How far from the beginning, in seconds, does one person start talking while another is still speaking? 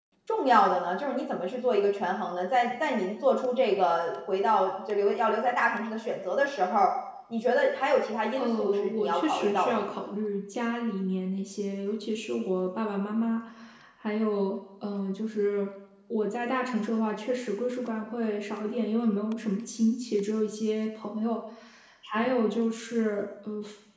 8.4 s

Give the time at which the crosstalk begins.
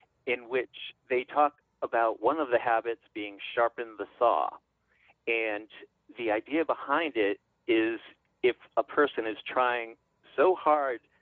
none

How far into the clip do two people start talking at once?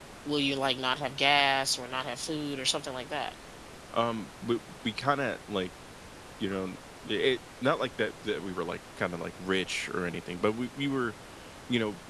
none

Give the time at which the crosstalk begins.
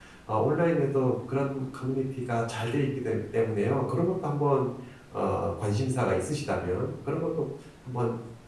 none

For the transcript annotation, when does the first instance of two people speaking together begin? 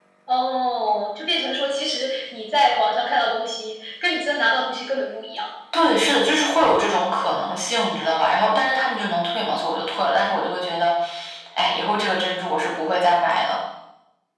none

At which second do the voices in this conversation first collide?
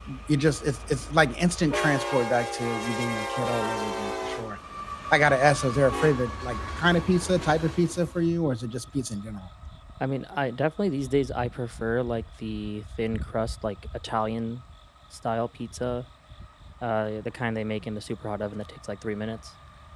none

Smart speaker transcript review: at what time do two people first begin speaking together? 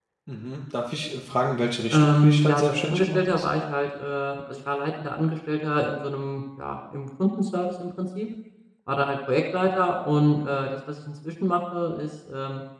1.9 s

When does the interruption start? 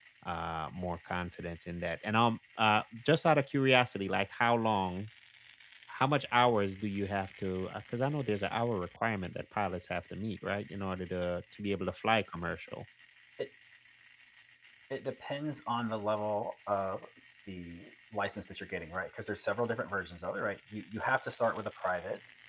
none

